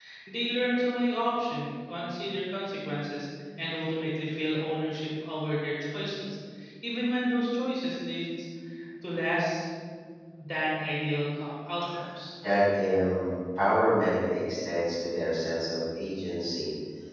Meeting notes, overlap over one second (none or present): none